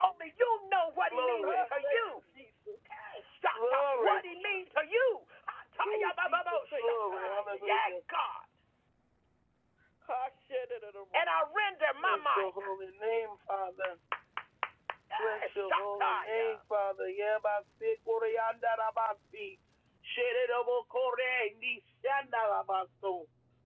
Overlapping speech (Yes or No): Yes